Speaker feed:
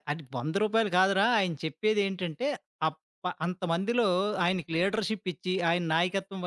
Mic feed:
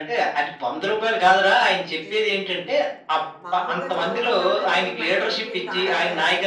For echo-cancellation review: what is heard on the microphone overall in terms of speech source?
both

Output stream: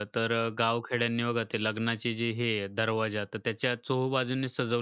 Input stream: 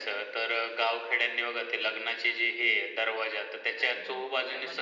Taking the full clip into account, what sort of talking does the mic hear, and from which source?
both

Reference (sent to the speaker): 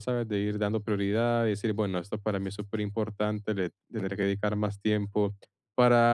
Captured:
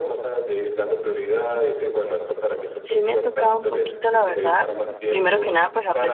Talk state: both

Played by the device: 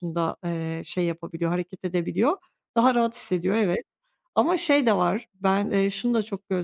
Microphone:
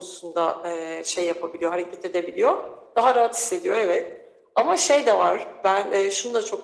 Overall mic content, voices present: echo only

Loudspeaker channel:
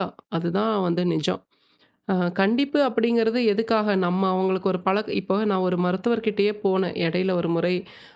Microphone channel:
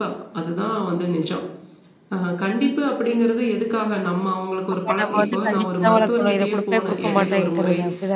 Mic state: both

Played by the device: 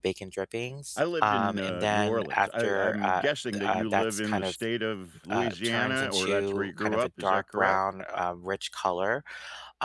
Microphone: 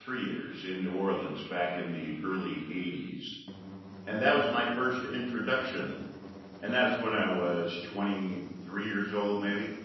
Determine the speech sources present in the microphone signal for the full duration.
user only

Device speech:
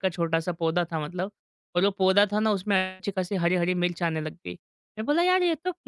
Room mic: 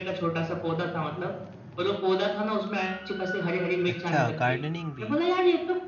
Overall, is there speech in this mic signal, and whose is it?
both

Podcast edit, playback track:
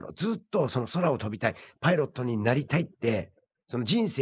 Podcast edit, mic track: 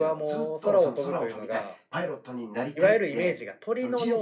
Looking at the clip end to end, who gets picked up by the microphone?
both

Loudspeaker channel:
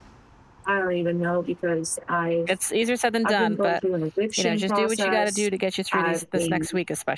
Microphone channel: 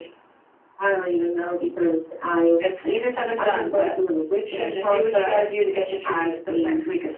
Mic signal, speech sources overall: echo only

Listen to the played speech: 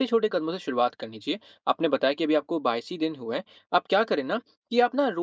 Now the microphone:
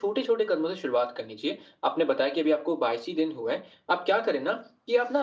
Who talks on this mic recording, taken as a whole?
echo only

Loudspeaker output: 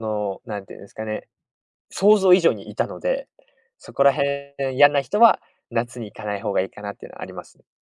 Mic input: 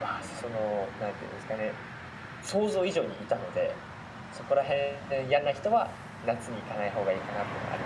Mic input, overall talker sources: echo only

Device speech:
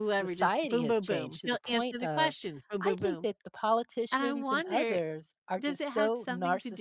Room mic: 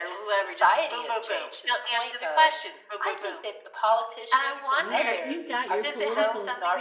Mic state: both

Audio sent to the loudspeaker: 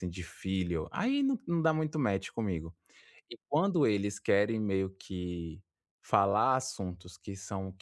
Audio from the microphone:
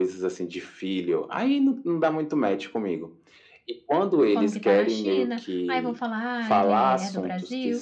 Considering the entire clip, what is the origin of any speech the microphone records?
both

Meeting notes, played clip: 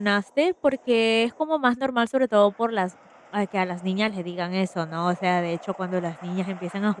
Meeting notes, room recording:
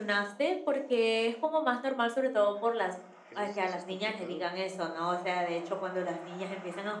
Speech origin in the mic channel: both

